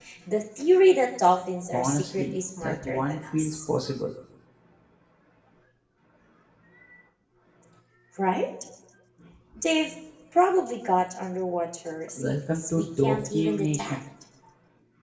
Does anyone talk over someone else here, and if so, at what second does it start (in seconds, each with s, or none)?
1.7 s